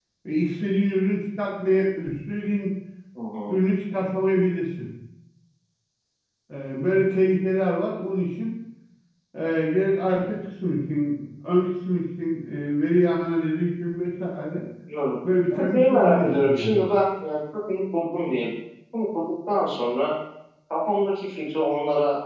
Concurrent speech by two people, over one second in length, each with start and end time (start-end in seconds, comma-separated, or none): 15.5-16.9